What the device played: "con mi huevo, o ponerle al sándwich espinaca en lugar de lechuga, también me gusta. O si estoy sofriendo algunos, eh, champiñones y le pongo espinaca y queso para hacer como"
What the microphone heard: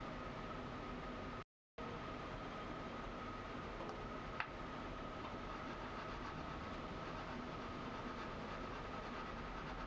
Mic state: neither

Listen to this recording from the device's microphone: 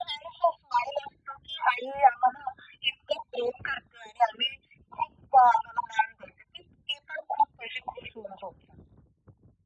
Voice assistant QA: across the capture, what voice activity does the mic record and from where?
echo only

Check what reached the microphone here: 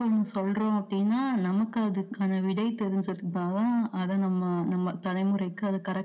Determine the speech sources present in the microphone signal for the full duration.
echo only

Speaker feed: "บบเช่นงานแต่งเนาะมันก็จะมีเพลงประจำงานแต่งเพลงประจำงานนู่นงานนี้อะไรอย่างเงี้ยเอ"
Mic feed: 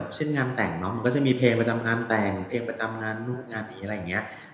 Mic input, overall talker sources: echo only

